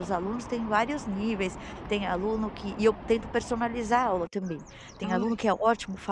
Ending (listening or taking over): listening